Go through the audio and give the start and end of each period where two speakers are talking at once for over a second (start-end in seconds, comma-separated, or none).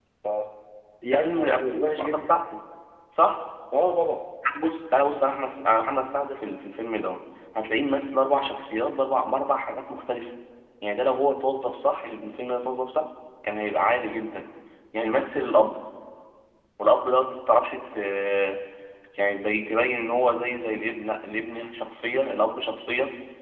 1.1-2.3